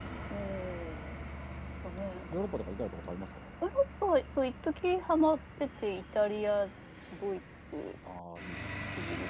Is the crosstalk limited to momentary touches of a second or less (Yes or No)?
Yes